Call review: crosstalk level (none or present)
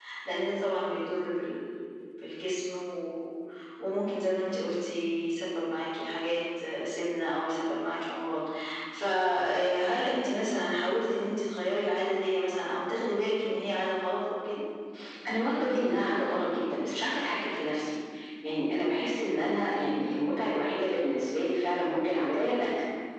none